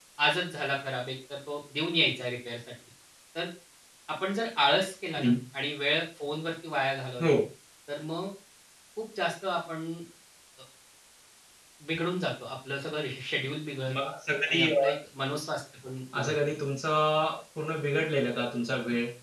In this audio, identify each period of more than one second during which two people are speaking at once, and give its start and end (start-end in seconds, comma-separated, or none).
none